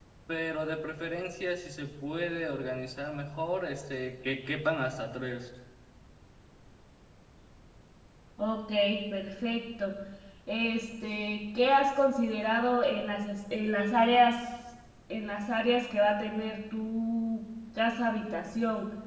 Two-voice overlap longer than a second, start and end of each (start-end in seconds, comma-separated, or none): none